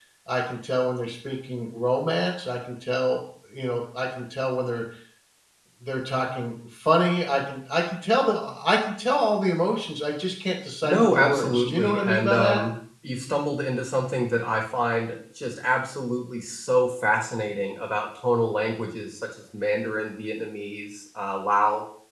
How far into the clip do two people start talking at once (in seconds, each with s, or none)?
10.8 s